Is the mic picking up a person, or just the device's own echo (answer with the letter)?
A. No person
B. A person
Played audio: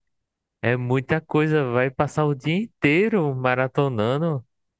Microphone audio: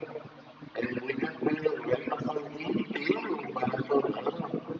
A